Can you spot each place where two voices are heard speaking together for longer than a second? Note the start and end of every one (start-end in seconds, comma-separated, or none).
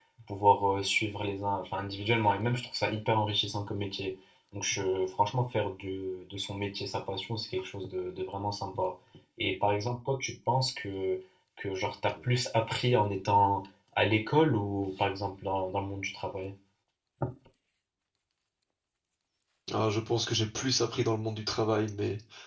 none